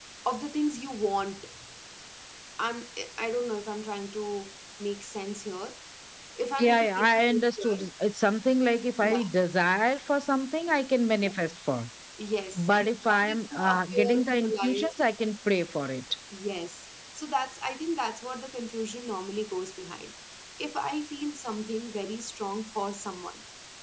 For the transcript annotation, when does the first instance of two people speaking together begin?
6.6 s

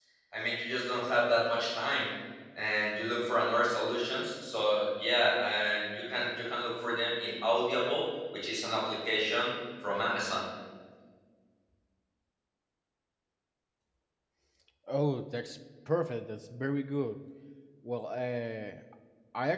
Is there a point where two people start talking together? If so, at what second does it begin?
none

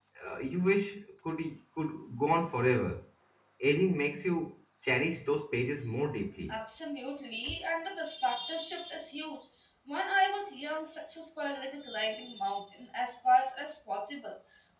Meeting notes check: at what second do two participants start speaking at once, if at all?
none

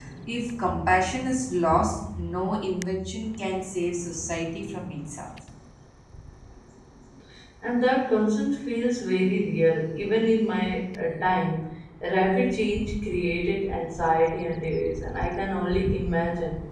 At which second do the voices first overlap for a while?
none

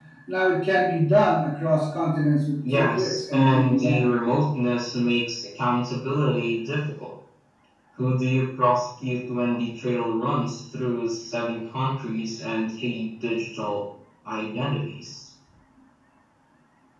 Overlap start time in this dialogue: 2.6 s

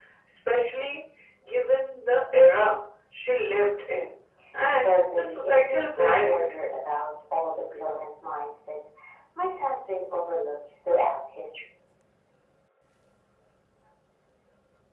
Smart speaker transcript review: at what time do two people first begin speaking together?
4.8 s

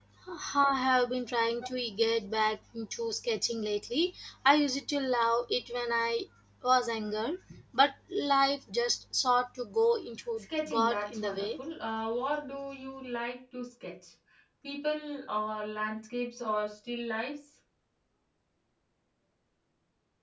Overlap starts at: 10.4 s

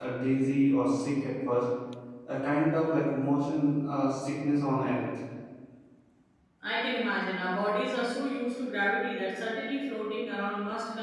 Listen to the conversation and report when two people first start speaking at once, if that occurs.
none

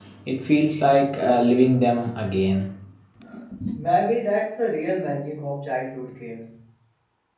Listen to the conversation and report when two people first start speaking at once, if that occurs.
none

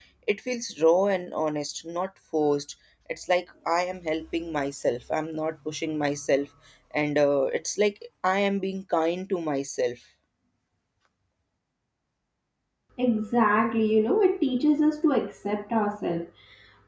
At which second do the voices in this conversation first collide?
none

